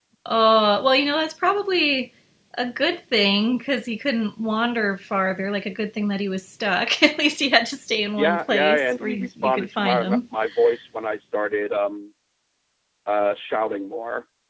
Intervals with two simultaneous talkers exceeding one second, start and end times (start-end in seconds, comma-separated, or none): 8.2-10.2